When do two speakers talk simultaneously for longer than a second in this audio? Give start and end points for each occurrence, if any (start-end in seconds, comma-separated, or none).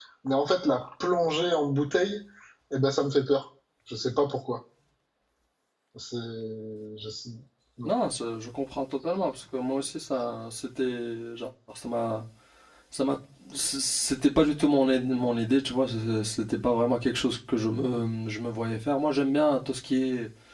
none